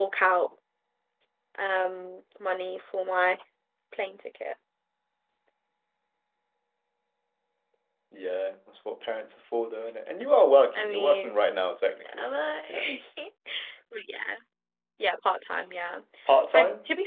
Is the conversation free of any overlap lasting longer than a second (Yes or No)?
Yes